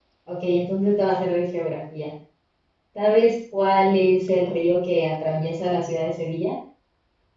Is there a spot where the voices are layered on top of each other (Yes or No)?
No